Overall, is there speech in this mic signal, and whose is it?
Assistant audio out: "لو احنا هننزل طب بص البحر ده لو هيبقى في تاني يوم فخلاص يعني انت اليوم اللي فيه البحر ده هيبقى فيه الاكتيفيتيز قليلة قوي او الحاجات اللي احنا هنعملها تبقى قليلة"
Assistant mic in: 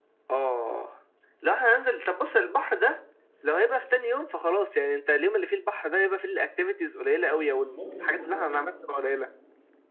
both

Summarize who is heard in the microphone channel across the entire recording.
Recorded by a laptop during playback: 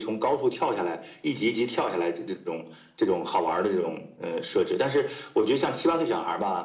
echo only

